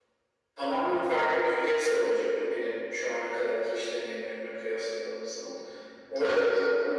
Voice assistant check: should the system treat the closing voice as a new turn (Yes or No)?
No